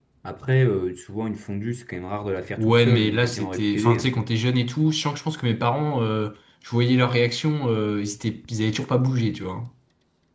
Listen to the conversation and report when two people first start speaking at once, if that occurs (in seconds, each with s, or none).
2.6 s